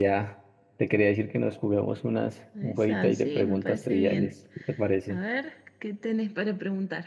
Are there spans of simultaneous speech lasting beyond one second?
Yes, from 2.5 s

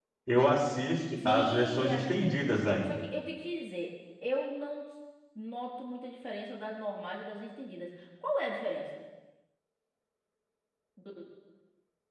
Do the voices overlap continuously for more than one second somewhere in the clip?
Yes, from 1.2 s

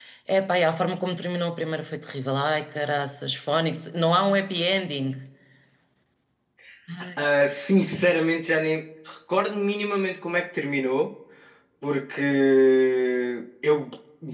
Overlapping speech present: No

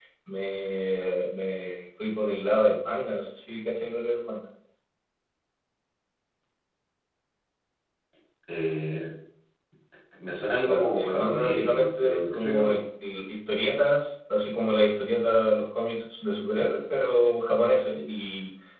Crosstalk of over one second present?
Yes, from 10.7 s

